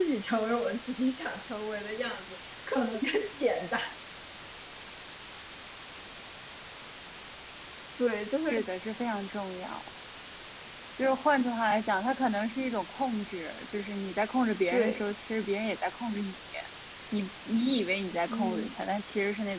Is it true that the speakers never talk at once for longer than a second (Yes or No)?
Yes